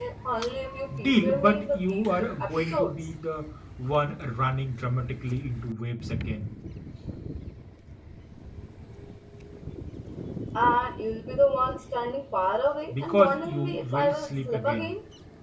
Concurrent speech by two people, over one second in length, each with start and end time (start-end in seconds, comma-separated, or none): 1.0-3.0, 12.9-14.9